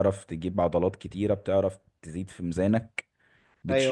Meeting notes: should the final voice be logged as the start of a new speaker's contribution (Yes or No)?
No